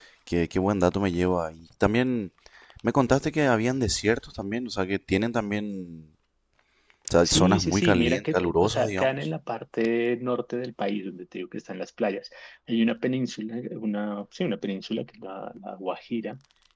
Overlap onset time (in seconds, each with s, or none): 7.2 s